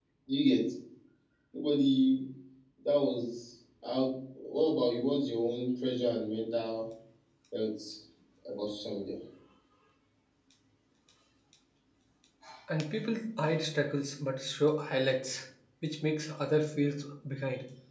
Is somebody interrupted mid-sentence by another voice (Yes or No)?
No